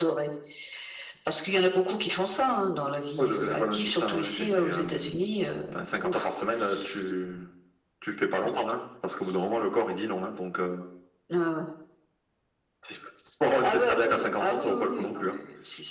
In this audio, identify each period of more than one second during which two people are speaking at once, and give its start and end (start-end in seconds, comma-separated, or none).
3.2-5.2, 13.6-15.2